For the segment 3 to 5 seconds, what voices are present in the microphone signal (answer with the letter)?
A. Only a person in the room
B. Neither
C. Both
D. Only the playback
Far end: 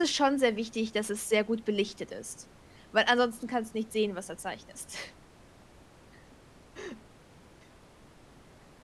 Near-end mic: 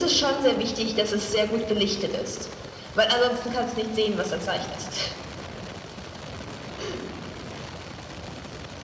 D